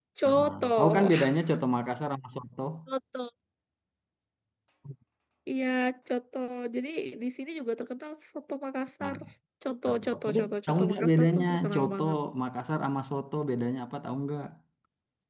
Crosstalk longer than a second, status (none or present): present